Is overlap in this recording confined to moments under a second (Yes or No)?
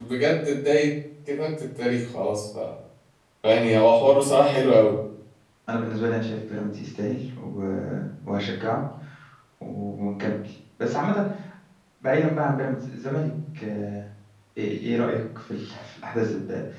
Yes